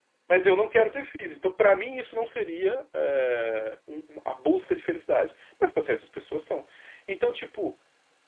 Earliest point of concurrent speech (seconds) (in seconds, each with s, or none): none